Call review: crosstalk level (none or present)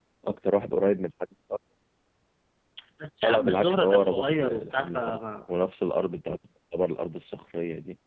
present